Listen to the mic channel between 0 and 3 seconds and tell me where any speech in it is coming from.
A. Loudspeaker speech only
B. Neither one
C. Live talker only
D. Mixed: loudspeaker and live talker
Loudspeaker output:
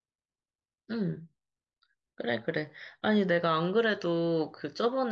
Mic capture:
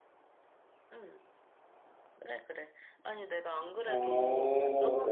A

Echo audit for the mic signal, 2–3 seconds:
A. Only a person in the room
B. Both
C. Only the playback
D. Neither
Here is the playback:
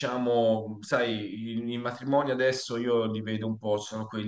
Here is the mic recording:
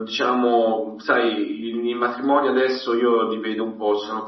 C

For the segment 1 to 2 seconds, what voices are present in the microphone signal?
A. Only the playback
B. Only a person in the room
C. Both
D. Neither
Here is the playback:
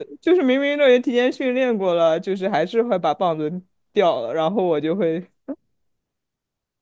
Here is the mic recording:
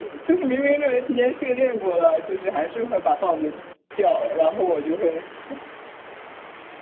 A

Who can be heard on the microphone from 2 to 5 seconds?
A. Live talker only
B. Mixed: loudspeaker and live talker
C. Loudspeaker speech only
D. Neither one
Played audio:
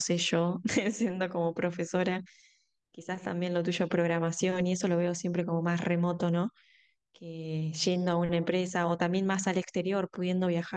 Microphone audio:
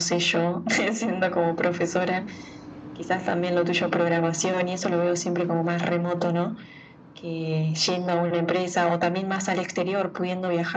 C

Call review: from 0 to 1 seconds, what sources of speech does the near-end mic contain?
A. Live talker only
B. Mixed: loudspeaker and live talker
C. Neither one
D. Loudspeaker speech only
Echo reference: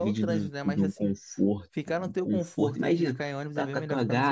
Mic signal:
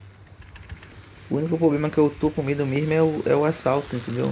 C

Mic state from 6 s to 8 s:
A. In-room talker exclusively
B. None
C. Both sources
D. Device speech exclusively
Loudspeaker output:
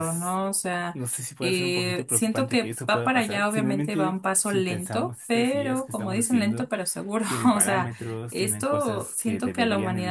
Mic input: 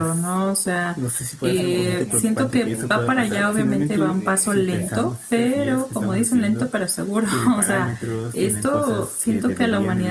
D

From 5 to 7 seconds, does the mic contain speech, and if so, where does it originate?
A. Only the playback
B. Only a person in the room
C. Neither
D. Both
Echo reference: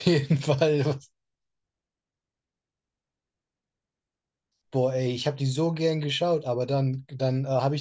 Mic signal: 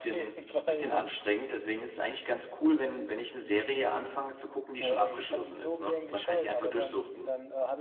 D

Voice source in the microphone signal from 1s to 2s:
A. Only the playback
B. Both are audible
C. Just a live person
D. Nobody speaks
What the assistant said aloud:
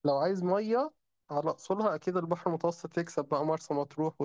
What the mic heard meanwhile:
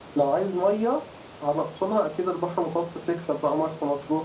A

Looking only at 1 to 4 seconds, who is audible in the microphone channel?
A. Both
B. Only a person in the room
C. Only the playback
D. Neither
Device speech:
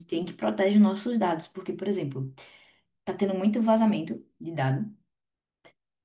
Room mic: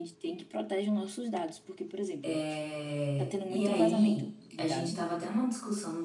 A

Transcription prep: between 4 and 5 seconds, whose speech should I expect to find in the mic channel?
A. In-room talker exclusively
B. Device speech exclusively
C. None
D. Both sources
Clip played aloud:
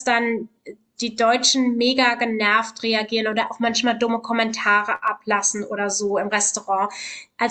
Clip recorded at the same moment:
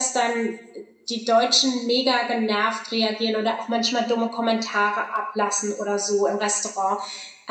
B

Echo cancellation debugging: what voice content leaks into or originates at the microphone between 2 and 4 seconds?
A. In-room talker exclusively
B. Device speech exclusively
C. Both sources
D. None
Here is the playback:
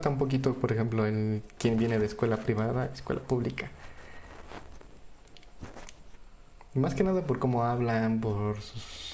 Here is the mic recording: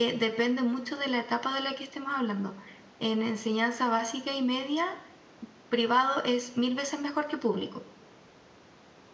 A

